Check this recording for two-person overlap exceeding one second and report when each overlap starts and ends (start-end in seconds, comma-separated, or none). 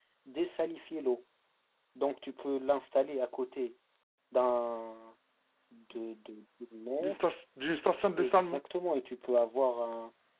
none